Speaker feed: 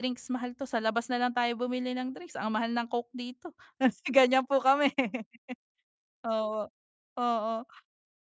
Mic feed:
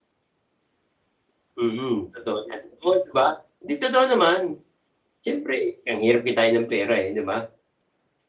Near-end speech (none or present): present